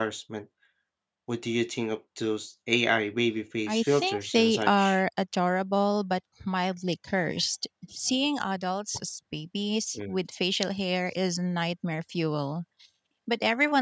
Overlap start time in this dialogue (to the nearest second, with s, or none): 4 s